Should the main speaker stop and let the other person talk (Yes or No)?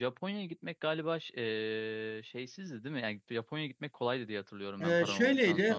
Yes